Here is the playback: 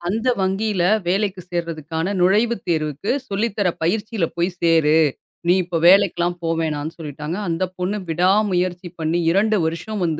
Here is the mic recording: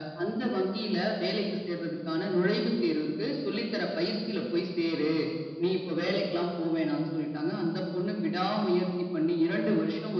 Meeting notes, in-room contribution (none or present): none